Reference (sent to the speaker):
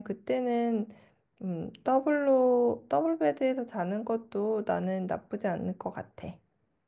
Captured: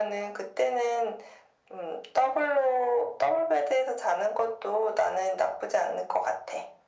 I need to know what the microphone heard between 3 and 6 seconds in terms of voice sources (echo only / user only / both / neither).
echo only